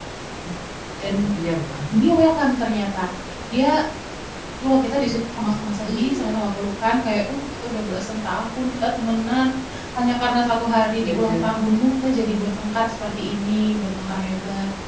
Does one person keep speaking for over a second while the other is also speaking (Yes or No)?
No